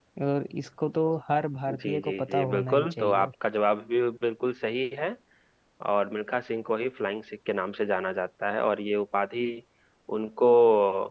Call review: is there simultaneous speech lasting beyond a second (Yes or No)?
Yes